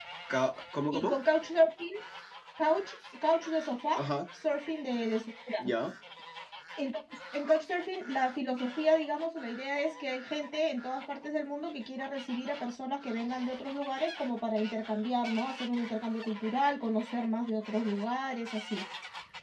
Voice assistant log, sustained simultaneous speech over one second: none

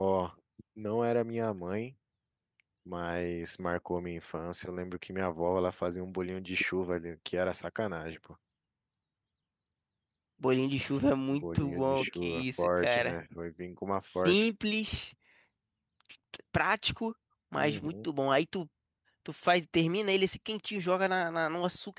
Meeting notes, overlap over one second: present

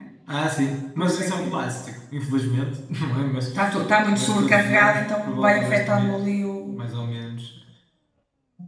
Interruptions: present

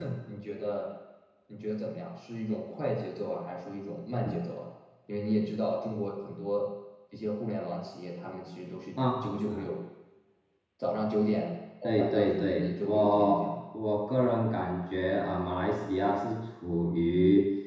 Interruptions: present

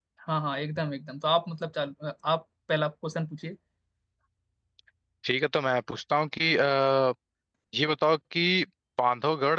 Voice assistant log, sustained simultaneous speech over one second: none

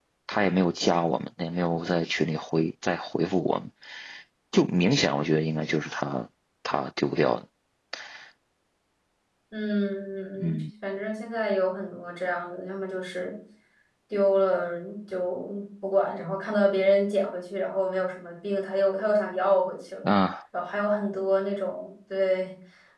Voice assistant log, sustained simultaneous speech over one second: none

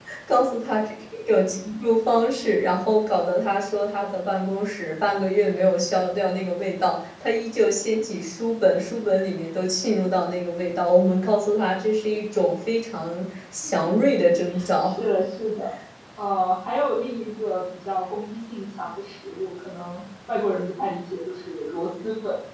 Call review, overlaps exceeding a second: none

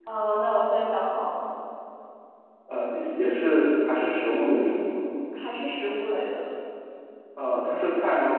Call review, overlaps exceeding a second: none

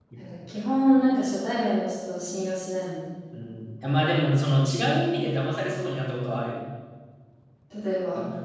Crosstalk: none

